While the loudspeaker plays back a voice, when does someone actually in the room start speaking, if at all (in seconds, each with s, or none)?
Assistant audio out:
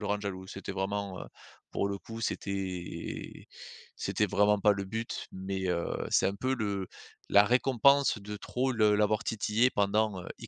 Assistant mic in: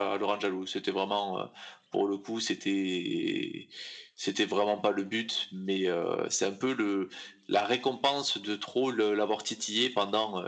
none